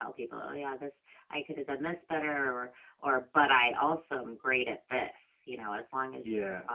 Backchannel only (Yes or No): Yes